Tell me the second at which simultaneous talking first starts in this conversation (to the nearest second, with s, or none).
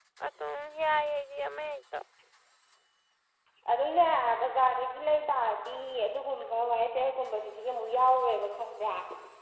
none